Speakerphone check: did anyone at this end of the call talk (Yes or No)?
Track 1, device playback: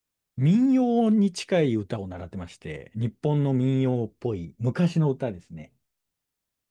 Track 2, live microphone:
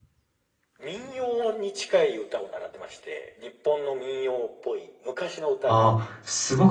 Yes